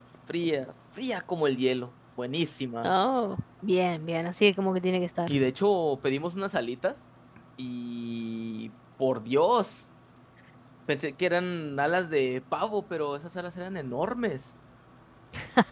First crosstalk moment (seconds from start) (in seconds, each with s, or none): none